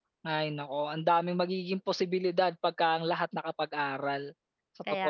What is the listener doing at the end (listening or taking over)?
taking over